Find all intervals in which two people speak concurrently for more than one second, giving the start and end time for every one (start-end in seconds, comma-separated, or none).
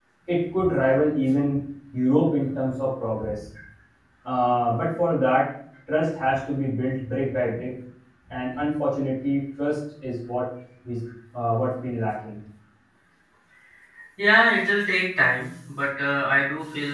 none